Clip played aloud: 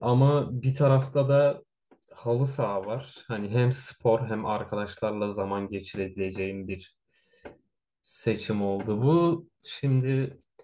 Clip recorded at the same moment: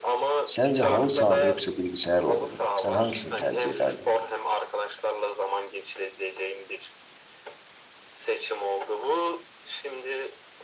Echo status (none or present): present